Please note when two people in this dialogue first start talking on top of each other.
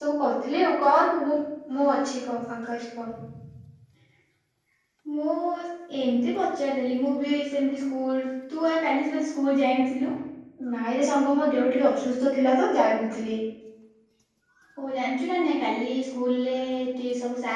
none

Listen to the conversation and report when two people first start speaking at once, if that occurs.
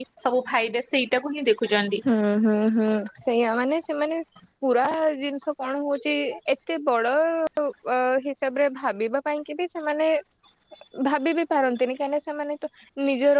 none

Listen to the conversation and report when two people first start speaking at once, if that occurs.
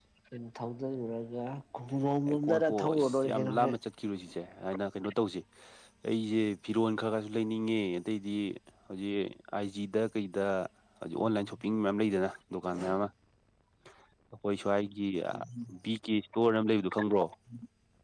2.3 s

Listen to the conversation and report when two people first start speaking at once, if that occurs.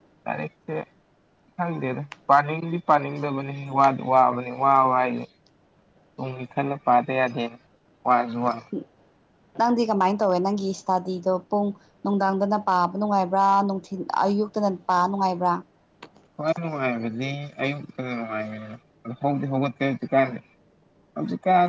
none

